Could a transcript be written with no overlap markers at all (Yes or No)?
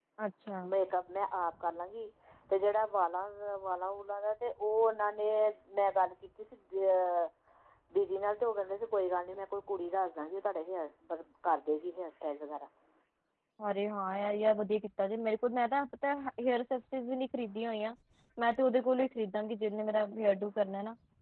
Yes